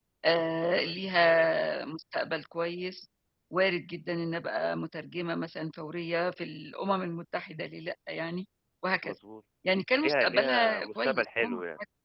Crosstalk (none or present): present